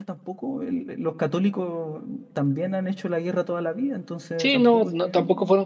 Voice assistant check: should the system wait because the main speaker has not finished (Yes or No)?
No